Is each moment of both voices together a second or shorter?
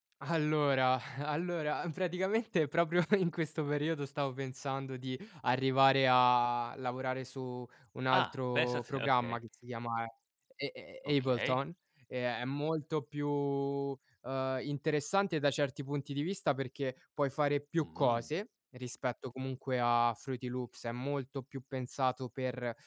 No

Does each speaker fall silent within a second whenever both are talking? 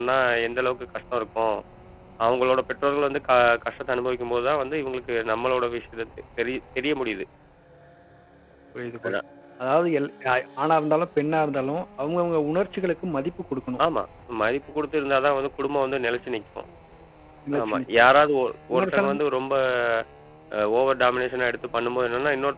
Yes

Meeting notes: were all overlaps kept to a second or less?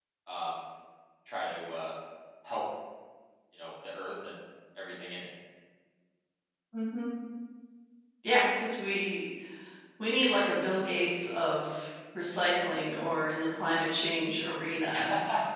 Yes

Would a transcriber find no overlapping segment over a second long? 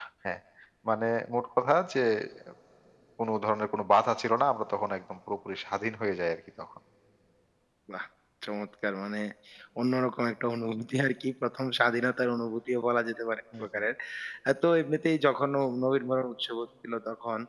Yes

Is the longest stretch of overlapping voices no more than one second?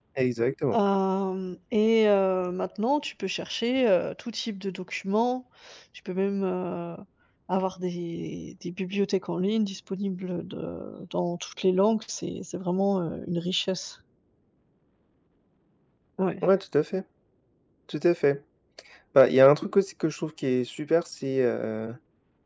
Yes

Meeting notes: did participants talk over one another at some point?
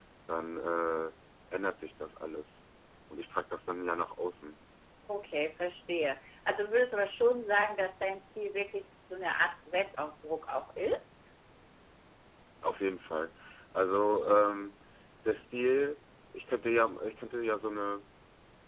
No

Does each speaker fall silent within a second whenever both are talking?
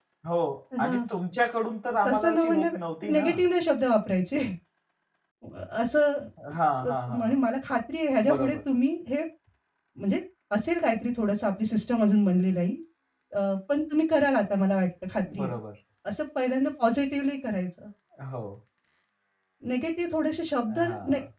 No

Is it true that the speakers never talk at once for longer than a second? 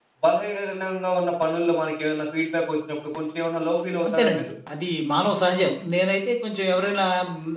Yes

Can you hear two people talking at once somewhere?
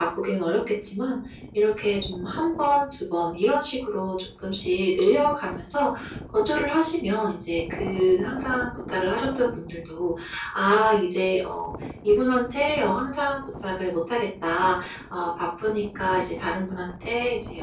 No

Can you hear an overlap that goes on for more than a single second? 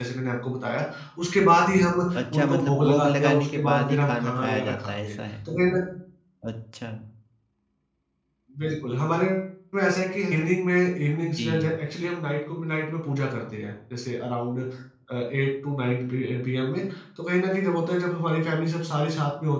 Yes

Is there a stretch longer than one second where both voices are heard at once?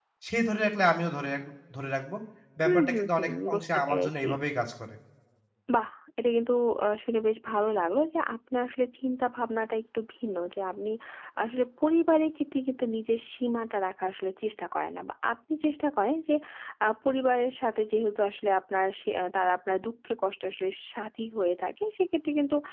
Yes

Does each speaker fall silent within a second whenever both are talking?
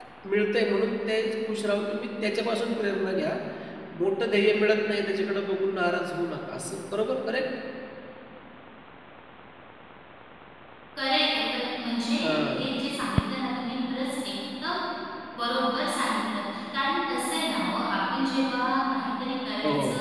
Yes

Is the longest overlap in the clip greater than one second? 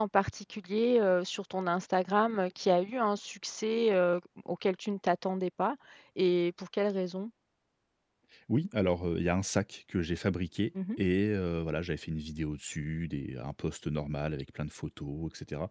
No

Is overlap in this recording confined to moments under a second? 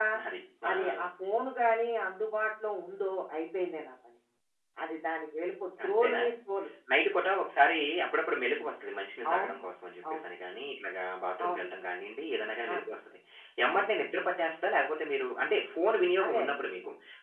Yes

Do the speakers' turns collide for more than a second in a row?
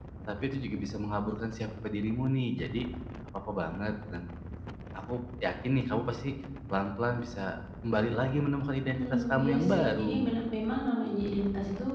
Yes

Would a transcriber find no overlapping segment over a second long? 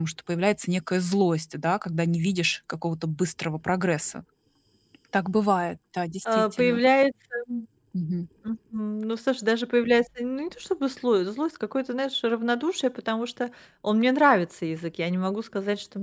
Yes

